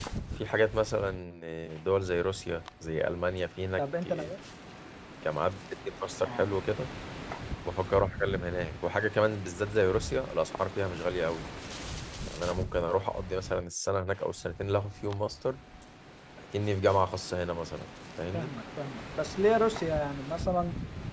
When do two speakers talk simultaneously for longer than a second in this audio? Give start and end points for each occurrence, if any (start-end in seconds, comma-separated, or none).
none